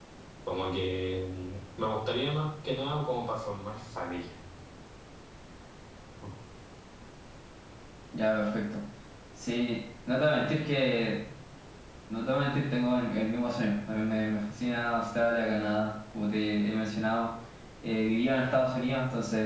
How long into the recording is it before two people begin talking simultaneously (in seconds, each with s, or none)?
none